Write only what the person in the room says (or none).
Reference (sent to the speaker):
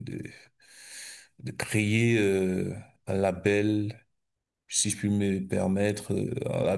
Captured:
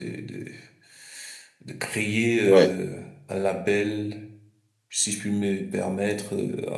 Ouais.